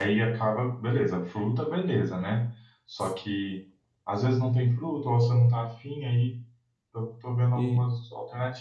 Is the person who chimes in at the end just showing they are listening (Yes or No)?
Yes